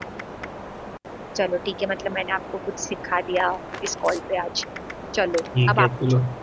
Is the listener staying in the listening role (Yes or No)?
No